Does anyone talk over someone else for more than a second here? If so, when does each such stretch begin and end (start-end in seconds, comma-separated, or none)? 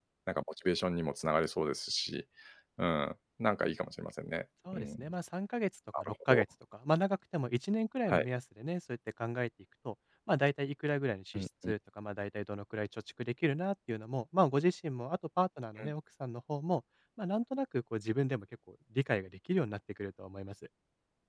none